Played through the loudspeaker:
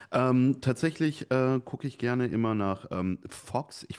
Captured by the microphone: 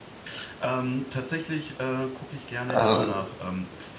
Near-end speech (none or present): present